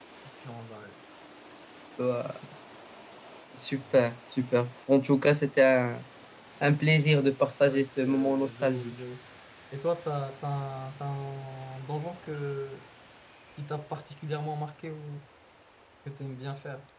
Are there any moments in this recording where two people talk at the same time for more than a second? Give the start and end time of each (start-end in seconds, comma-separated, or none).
7.7-8.9